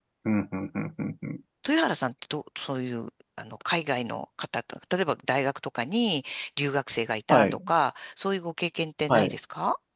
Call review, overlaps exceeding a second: none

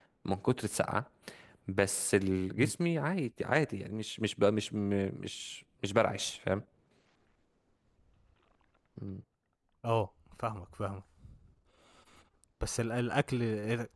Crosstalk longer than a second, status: none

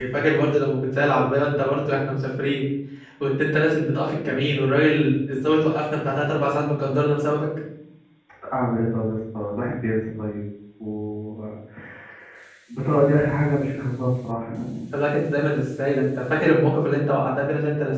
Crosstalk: none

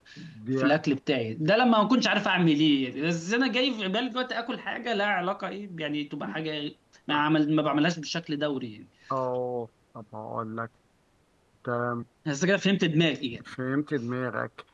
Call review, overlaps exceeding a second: none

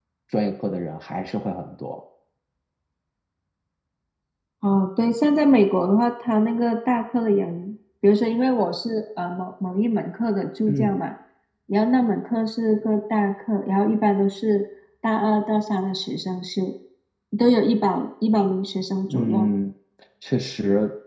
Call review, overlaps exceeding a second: none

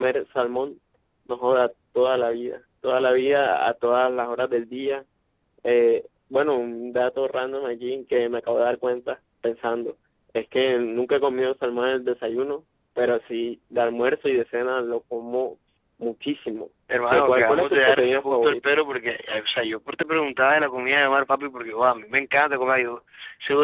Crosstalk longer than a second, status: present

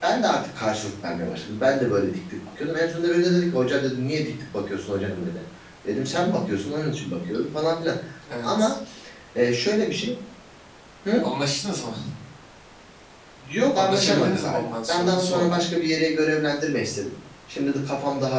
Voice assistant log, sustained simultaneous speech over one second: present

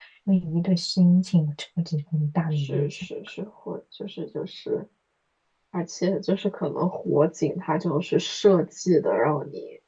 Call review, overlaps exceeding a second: none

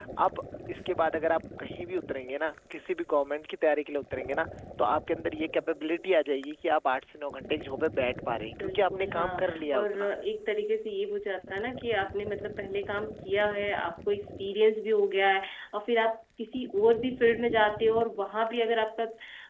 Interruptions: present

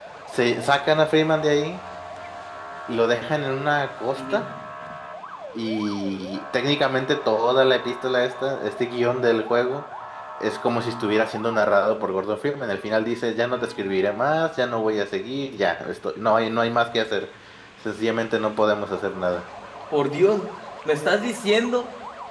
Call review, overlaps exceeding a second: none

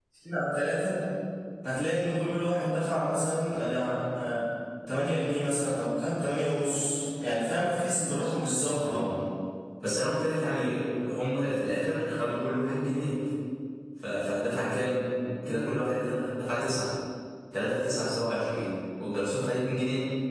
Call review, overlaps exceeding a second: none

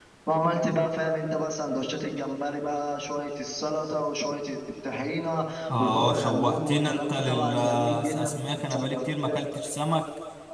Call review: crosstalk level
present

